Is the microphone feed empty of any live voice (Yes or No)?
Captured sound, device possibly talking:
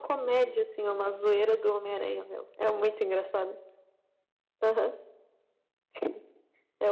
Yes